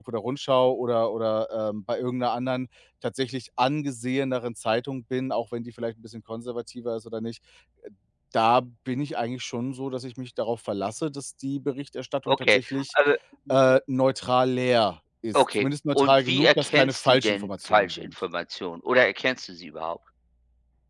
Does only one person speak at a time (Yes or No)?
No